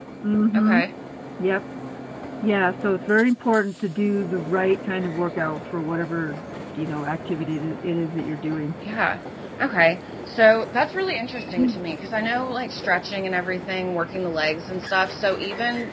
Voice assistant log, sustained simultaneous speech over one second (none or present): none